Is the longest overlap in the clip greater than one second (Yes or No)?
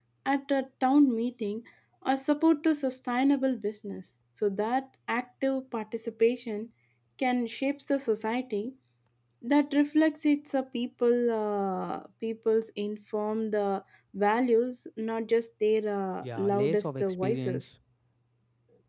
Yes